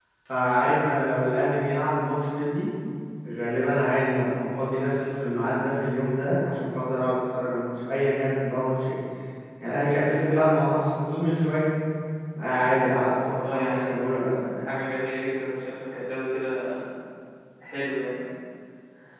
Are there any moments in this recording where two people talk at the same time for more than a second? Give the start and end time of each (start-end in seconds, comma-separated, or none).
13.1-14.3